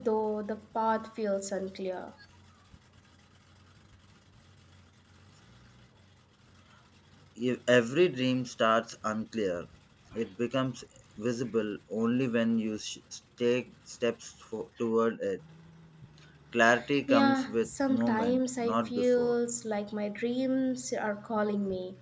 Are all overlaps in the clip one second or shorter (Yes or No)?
No